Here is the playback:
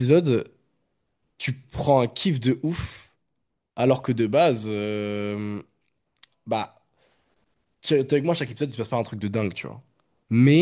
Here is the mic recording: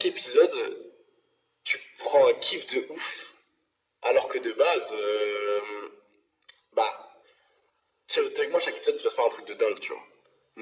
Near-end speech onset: none

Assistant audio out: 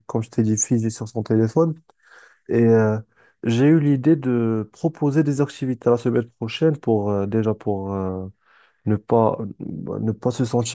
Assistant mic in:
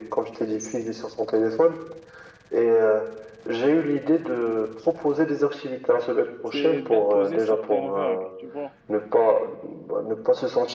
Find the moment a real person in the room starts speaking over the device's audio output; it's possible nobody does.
6 s

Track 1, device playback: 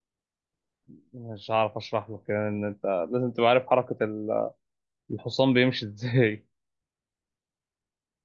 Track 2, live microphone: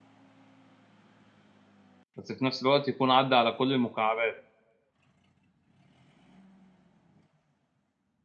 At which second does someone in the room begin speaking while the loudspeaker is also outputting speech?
2 s

